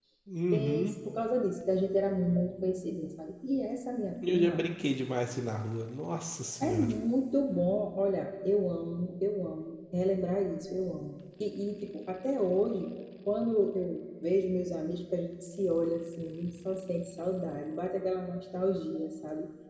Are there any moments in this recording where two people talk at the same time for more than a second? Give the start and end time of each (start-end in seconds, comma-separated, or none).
none